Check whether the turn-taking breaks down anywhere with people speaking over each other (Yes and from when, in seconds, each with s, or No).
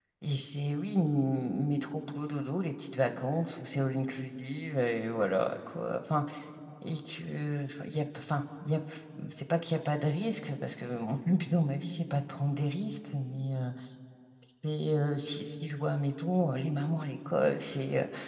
No